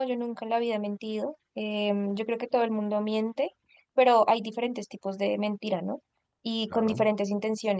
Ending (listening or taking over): listening